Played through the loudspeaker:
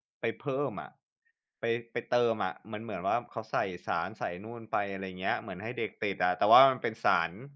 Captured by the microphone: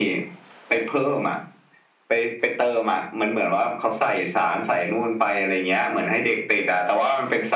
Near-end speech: none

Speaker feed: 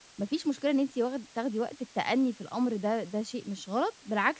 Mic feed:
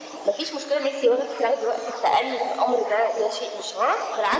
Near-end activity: none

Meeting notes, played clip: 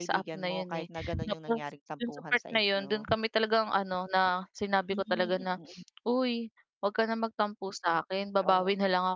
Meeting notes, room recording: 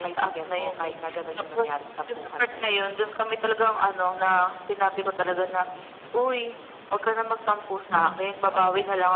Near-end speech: present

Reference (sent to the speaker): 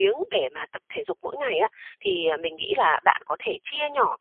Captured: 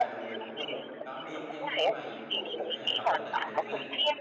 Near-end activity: present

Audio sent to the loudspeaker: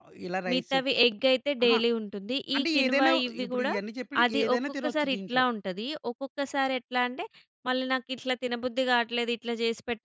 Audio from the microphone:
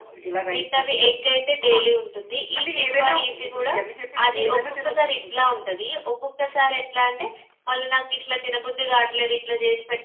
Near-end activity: none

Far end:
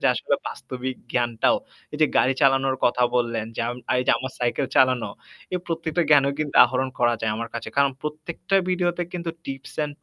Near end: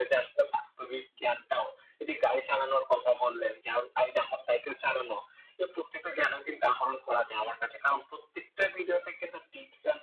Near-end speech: none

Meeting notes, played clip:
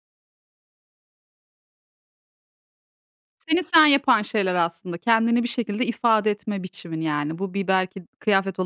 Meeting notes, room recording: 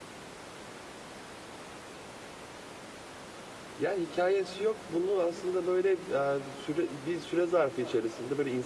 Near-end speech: present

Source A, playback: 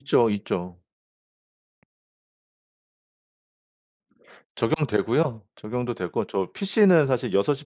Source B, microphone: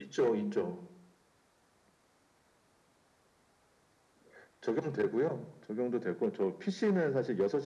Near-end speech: none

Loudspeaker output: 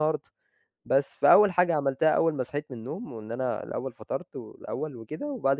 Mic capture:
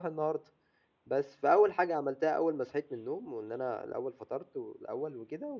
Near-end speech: none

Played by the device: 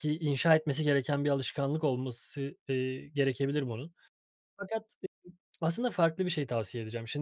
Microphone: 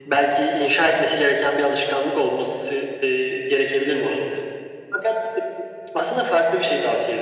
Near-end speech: none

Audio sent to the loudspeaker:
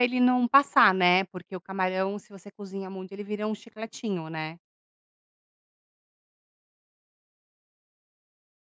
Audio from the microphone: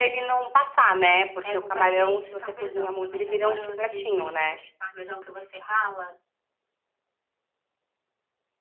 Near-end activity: present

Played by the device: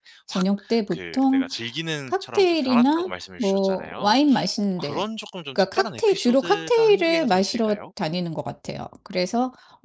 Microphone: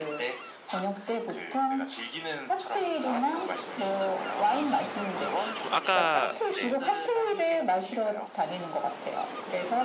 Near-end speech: present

